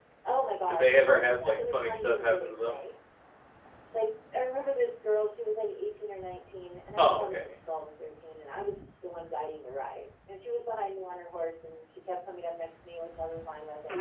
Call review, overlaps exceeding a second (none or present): present